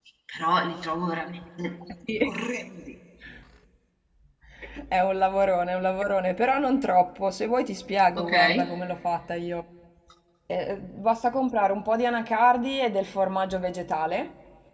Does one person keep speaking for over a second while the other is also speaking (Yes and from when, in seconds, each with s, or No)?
No